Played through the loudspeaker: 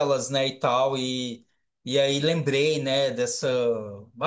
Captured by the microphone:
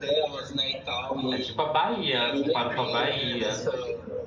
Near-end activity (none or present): present